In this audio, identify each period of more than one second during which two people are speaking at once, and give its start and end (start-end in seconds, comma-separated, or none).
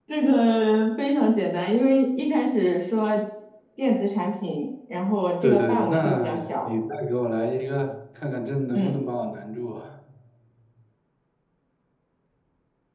5.4-6.8